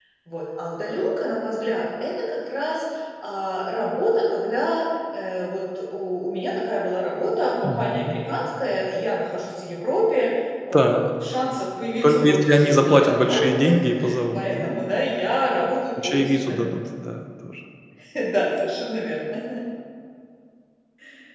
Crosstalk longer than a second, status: present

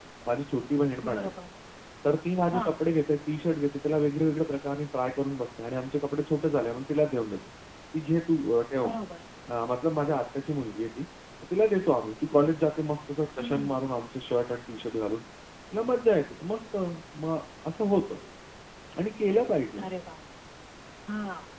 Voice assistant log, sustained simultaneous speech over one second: none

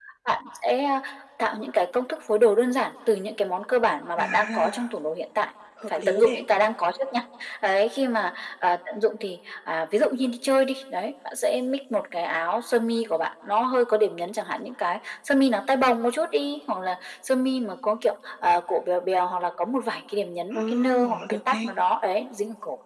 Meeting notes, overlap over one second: present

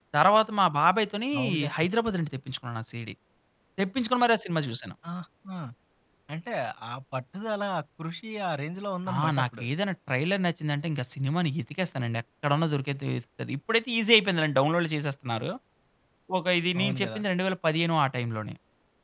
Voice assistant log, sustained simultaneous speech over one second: none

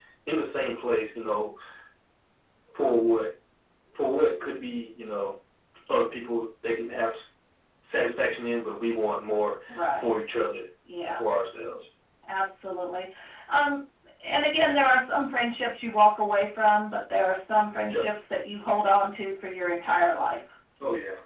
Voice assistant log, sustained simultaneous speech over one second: none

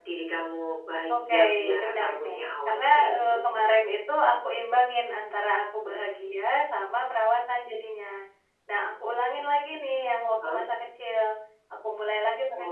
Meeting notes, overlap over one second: present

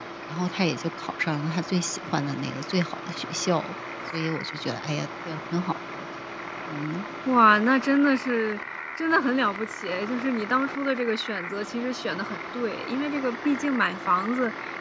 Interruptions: none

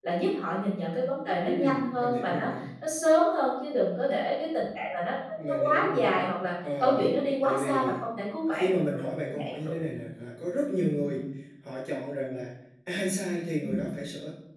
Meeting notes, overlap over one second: present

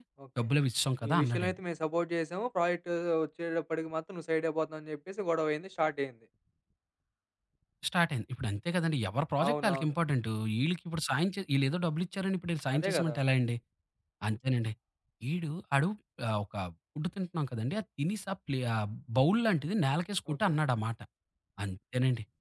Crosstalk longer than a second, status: none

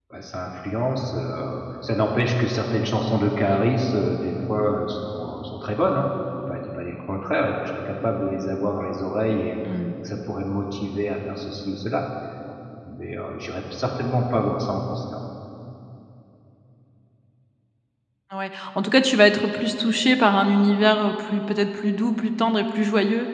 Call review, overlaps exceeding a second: none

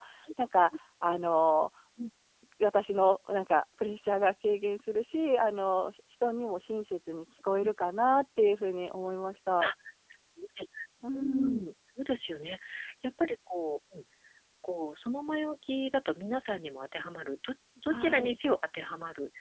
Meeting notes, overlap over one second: none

